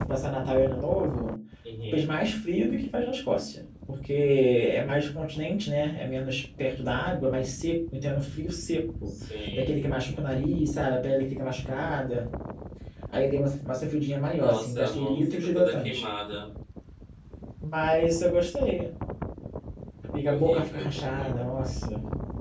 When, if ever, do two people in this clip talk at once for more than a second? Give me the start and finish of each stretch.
14.3-16.0, 20.3-21.5

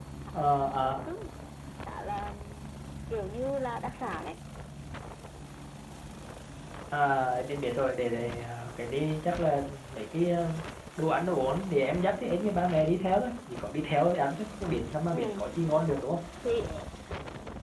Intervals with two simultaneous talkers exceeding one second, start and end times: none

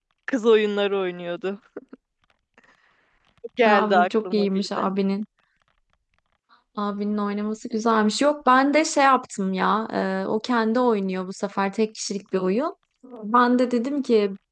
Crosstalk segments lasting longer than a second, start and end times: 3.6-4.9

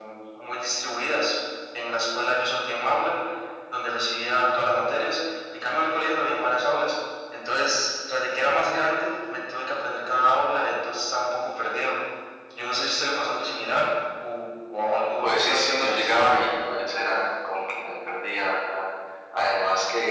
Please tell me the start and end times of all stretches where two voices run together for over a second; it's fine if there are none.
15.2-16.4

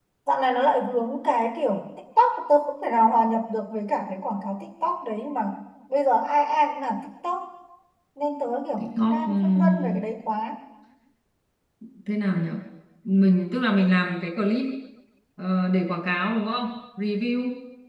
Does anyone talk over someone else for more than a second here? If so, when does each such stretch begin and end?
8.8-10.1

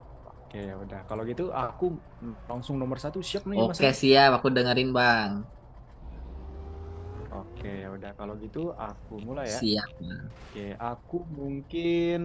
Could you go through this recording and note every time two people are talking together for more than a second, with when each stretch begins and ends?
none

